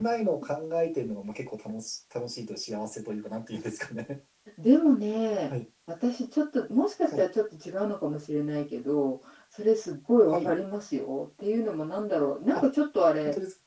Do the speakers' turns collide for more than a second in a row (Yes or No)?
No